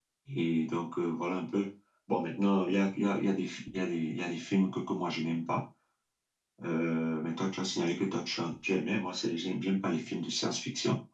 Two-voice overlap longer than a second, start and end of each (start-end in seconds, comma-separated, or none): none